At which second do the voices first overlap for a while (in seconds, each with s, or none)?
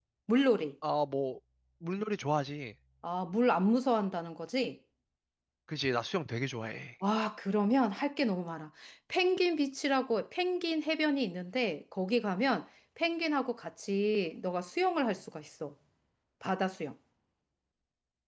none